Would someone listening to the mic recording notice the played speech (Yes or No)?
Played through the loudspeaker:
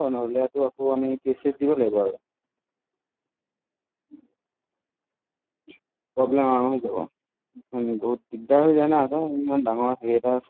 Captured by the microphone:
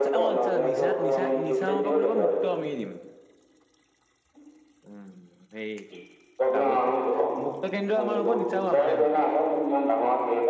Yes